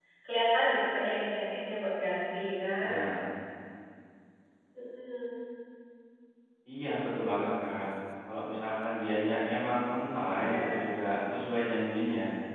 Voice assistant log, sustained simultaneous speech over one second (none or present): none